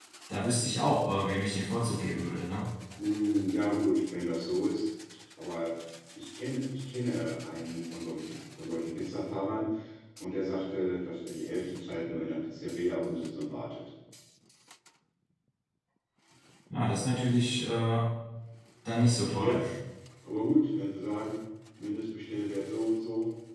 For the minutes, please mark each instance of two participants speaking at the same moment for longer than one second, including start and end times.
none

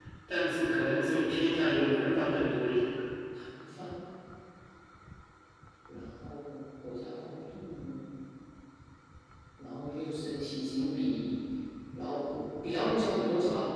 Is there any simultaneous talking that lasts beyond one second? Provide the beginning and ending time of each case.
none

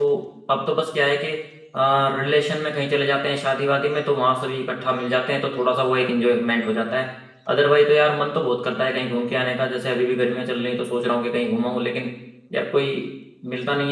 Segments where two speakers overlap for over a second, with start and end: none

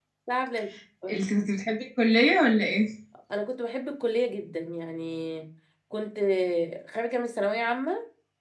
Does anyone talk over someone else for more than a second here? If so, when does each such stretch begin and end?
none

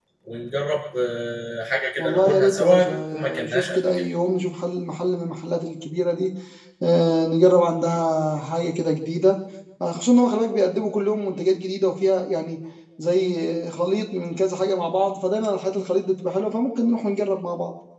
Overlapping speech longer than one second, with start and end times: 2.0-3.8

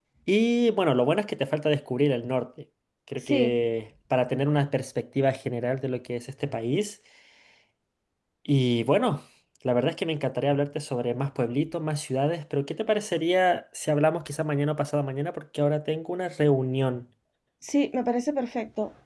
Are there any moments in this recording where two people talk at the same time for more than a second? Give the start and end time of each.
none

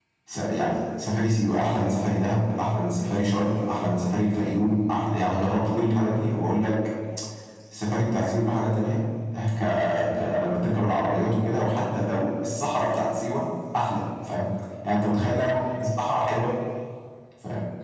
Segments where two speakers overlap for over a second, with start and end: none

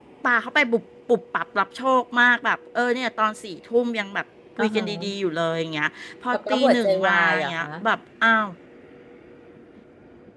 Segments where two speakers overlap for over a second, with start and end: 6.3-7.7

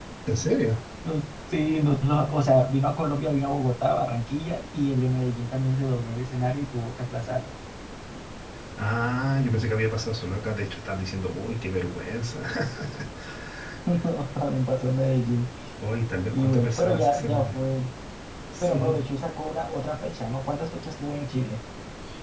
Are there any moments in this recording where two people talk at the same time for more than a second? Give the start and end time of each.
16.3-17.5

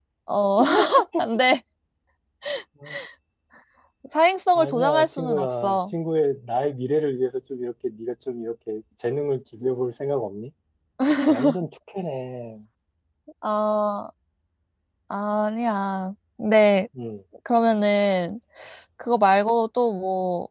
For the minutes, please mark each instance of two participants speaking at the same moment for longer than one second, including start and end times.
4.5-5.8

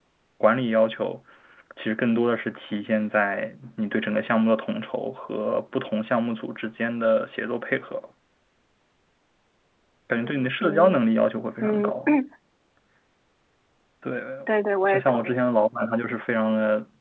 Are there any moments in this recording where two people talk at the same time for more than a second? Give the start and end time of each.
none

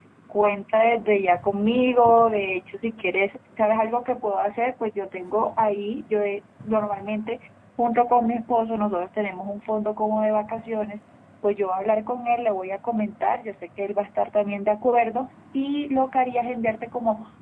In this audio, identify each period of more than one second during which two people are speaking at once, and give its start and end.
none

